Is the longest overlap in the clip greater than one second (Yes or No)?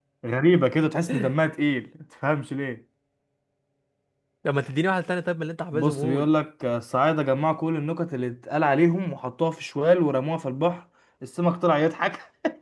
No